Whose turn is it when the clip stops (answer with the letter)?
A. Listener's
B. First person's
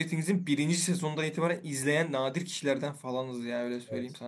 A